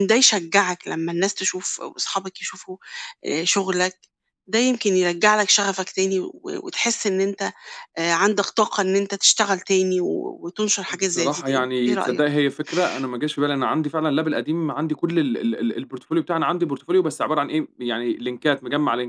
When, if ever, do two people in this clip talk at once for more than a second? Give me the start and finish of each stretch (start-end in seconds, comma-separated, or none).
11.0-12.2